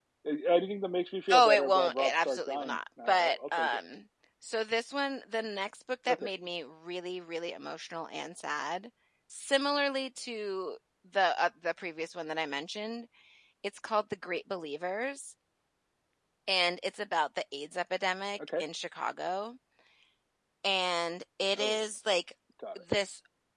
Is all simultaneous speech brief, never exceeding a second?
No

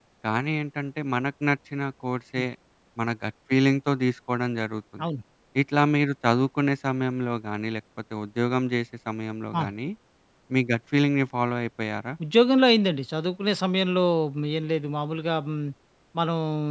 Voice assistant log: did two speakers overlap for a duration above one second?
No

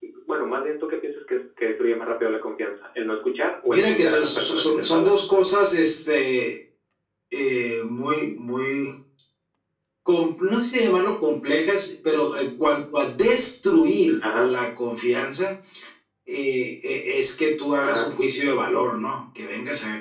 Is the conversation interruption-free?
No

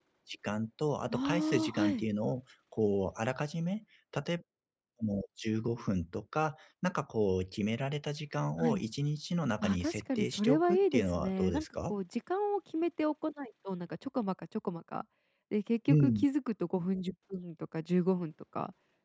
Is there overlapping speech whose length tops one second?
Yes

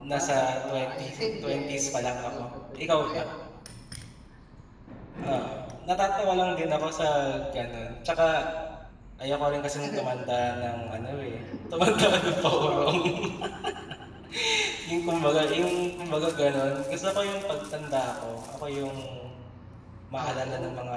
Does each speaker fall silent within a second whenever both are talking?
No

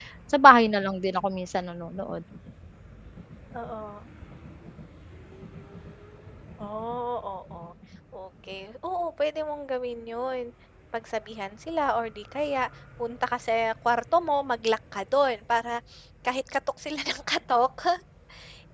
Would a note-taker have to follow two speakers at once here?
No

